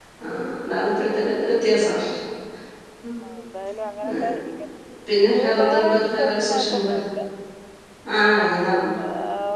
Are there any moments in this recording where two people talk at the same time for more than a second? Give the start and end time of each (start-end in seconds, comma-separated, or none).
5.4-6.9